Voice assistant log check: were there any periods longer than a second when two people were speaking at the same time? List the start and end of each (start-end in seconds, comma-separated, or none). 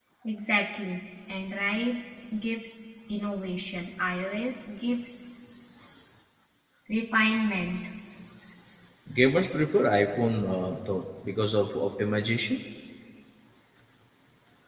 none